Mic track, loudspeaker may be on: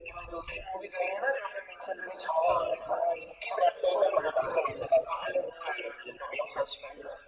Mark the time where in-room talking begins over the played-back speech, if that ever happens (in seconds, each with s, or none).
none